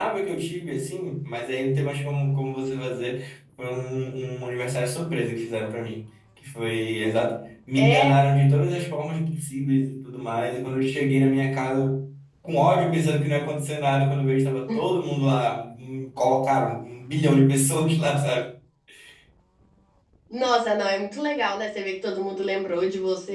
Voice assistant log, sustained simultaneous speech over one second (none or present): none